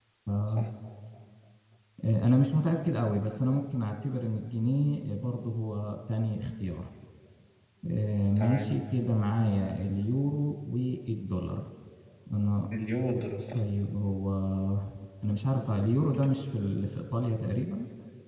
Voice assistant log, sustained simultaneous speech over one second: none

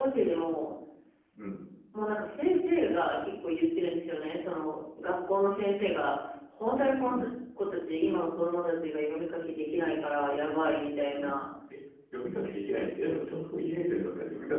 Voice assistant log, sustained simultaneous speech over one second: none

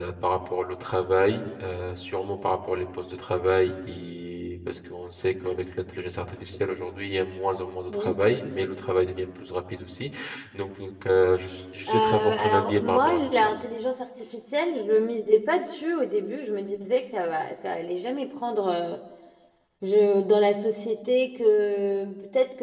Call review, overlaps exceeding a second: present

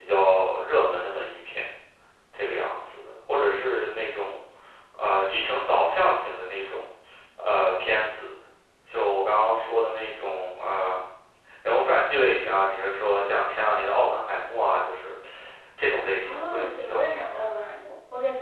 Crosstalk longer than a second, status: present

